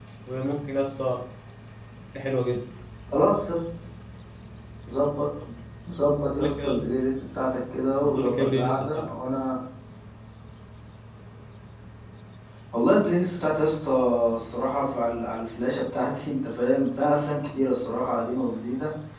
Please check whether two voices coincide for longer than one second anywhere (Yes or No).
Yes